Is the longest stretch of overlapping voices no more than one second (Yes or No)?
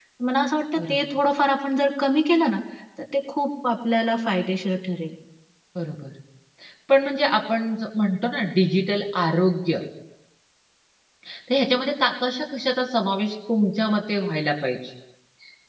Yes